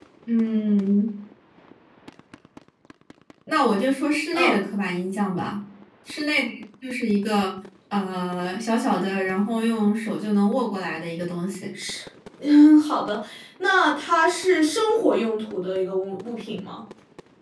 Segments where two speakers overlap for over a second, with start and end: none

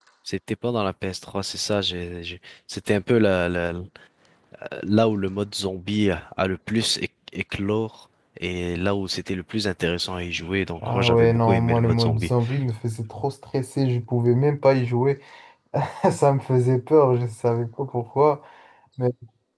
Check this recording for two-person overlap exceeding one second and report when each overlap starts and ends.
10.8-12.3

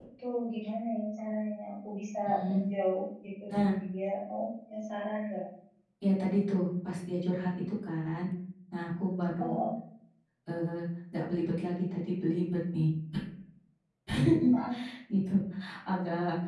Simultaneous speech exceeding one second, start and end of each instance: none

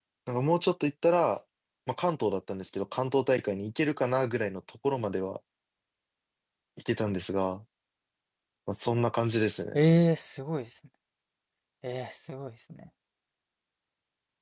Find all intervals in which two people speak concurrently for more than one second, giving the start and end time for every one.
none

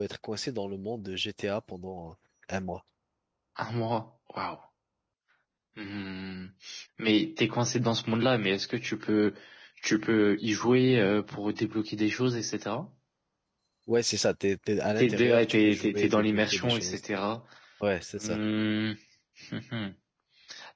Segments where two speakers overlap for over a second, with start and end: 15.0-17.0

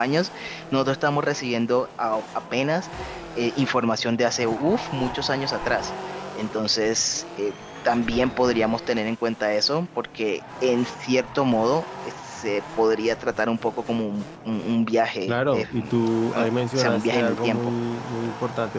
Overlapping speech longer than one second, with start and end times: 15.3-17.7

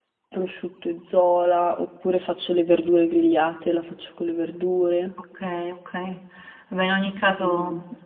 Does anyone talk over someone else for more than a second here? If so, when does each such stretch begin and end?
none

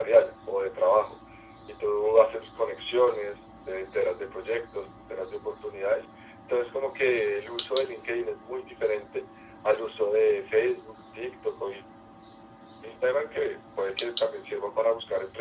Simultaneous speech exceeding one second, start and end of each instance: none

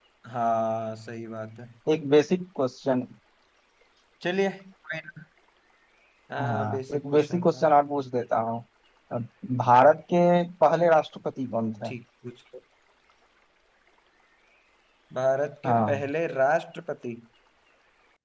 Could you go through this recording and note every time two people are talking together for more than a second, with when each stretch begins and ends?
6.4-7.6

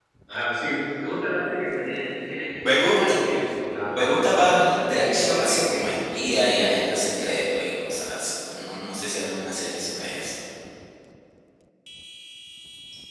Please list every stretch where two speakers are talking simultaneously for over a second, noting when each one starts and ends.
3.9-5.8

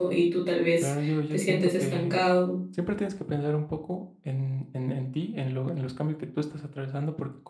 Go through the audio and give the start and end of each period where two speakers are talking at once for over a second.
0.8-2.2

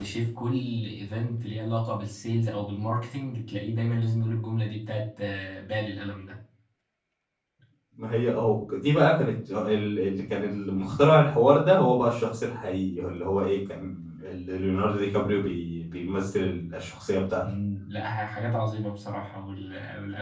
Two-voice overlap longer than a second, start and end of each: none

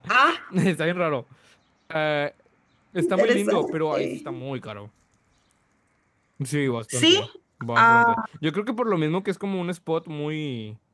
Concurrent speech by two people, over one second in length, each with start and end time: 3.0-4.3

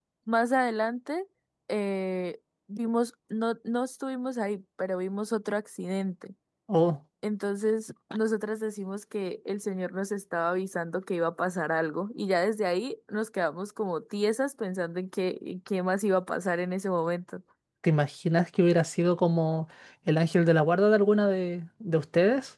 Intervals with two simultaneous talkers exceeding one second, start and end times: none

